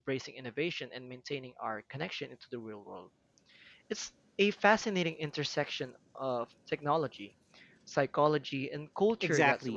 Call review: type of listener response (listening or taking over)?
taking over